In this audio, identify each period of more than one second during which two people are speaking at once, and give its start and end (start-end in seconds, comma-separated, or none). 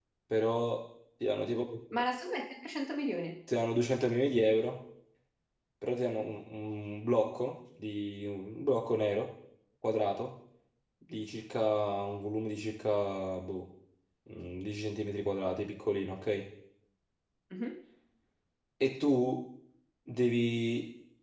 none